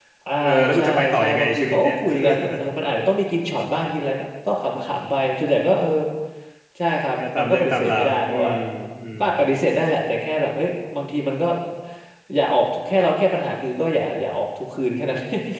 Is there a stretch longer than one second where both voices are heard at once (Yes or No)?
Yes